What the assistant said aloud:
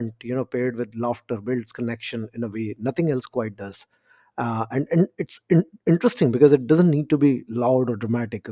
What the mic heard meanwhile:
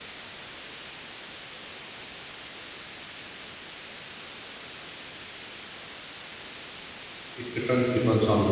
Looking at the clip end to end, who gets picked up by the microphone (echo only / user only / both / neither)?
user only